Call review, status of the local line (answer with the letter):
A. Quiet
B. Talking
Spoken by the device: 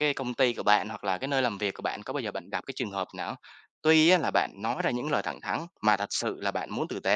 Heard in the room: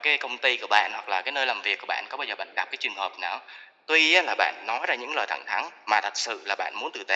A